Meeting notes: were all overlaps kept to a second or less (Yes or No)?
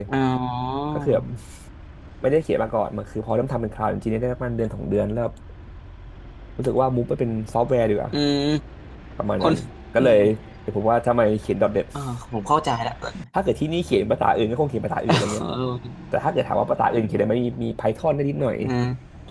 Yes